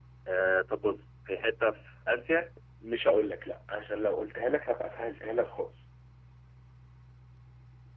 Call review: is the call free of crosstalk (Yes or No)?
Yes